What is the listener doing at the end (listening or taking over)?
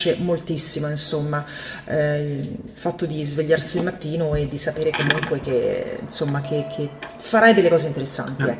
taking over